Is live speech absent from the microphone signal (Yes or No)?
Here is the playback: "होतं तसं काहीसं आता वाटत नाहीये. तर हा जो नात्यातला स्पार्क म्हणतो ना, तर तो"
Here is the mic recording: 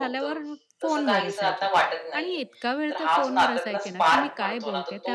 No